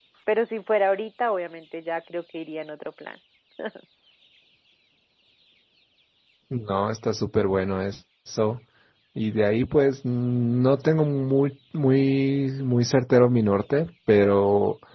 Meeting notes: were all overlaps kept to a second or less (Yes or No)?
Yes